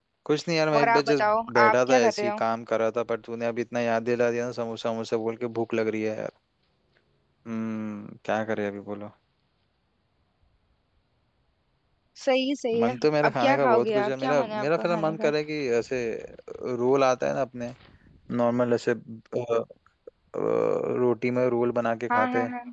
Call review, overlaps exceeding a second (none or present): present